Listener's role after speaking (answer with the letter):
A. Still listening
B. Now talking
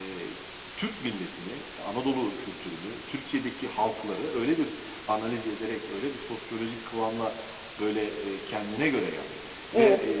A